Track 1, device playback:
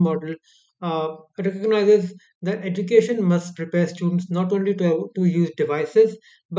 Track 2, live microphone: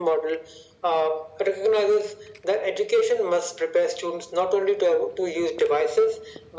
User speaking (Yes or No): No